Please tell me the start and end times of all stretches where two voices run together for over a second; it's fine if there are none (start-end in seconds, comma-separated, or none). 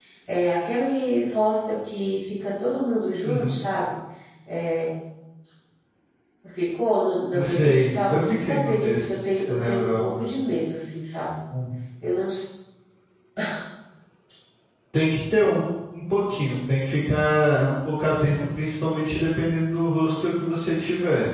7.3-10.2